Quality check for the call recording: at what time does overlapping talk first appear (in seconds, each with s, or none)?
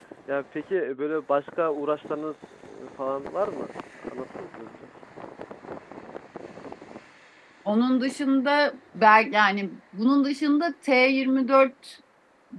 none